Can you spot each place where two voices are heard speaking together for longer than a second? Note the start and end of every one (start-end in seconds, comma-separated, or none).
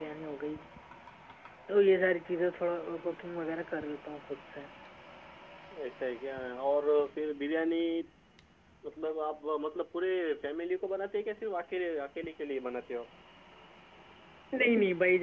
none